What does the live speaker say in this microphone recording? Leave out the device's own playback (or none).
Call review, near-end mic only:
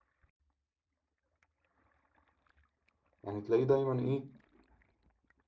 يعني تلاقيه دايما إيه